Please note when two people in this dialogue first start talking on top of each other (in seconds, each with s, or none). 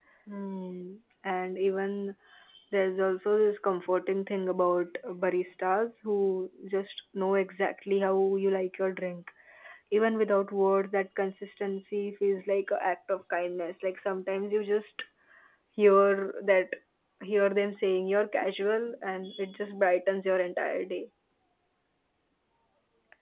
none